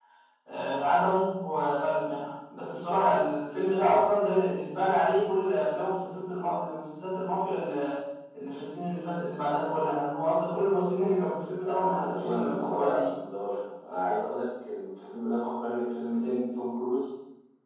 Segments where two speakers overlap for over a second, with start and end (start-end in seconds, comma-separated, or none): 11.6-13.1